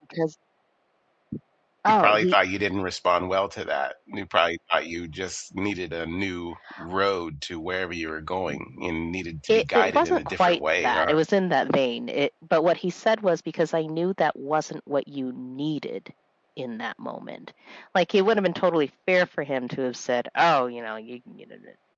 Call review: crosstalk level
present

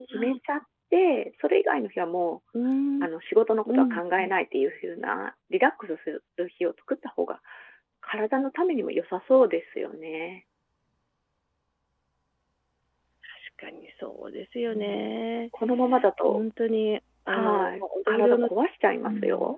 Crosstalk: present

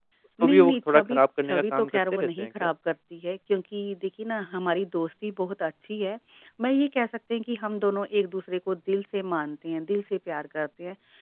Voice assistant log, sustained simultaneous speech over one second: present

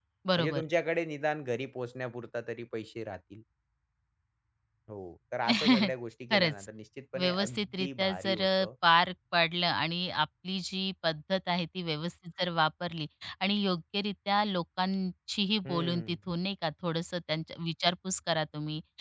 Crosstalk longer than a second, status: present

